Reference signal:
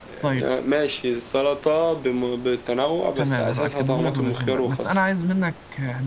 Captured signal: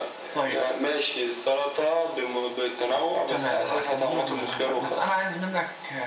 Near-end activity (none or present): none